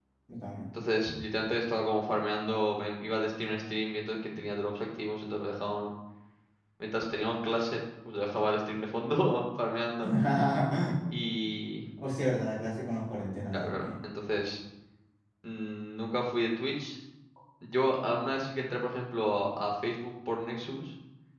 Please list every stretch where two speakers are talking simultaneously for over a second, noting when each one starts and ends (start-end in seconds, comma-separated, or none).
none